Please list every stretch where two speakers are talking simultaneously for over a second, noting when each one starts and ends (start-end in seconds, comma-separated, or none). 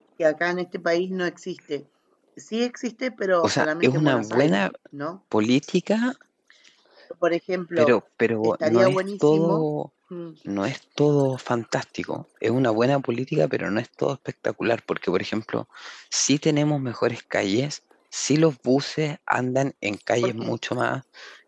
3.4-4.6, 8.4-9.7